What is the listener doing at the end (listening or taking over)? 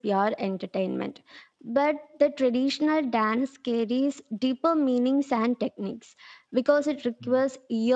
listening